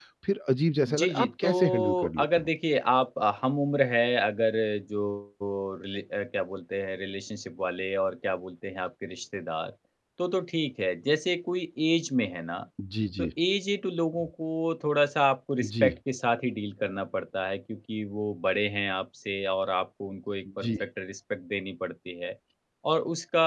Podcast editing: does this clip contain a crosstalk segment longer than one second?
Yes, from 0.9 s

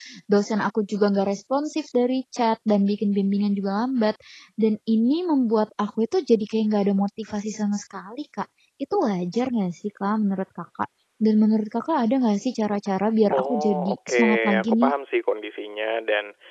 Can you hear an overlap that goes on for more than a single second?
Yes, from 13.3 s

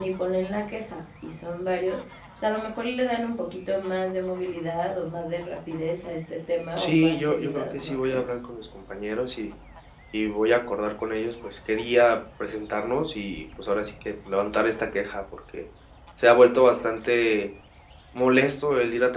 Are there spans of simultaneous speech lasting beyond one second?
Yes, from 6.8 s

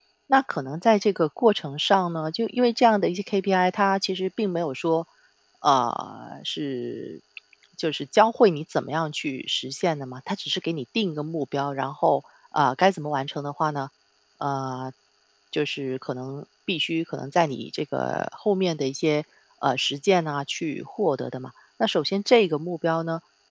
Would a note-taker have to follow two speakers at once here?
No

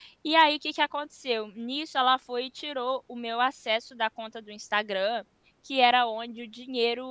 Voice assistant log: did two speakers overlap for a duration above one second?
No

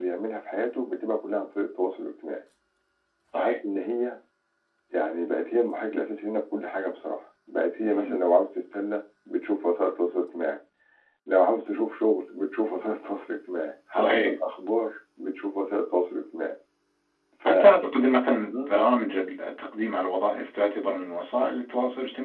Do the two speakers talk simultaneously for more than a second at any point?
No

